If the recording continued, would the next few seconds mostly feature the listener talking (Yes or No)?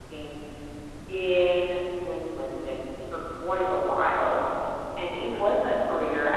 No